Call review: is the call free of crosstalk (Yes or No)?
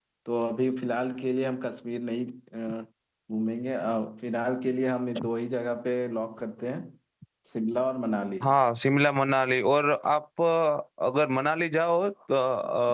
Yes